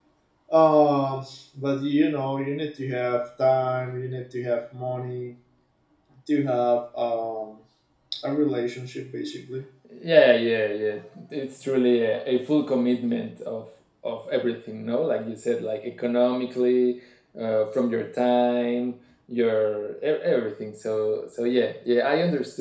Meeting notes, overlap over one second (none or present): none